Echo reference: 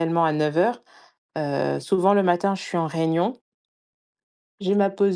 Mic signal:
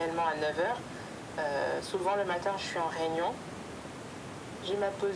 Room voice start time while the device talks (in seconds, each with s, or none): none